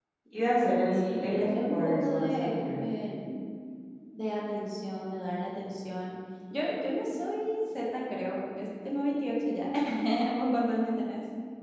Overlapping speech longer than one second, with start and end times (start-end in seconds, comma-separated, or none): 0.9-2.5